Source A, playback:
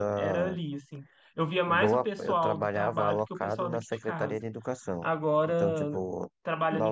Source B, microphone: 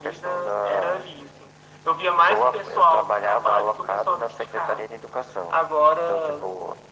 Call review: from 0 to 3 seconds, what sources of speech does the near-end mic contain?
echo only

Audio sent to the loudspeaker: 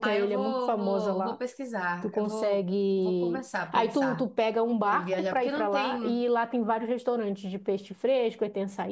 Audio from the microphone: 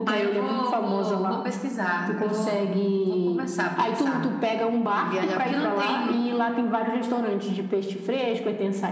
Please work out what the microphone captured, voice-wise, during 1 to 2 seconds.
echo only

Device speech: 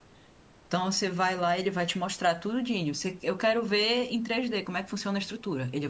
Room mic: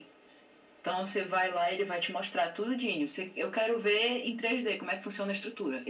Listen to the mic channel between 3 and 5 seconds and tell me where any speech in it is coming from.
echo only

